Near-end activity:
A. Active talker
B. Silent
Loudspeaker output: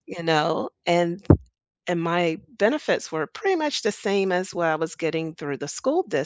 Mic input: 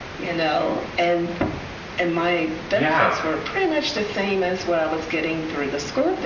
A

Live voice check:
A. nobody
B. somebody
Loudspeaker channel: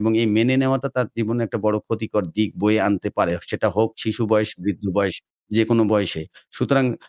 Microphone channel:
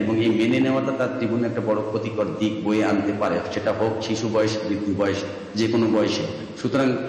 A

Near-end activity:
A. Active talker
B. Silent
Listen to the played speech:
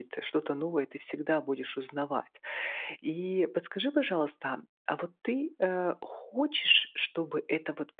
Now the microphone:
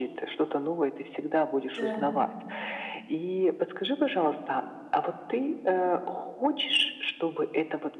A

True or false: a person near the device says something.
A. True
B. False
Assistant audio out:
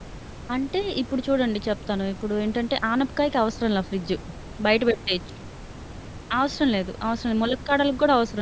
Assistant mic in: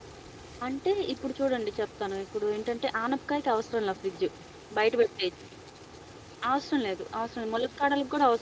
B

